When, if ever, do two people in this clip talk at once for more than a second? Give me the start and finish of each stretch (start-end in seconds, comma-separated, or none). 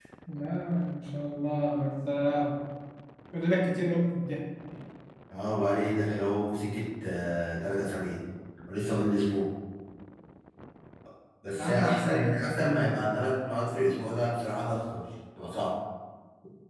11.5-12.9